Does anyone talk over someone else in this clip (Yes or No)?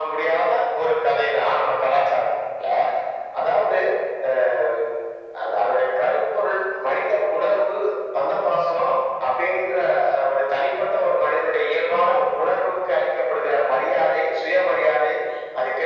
No